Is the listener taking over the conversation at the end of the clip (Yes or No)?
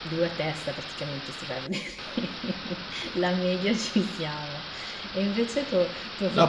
Yes